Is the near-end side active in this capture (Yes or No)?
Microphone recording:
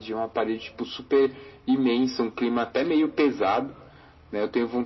No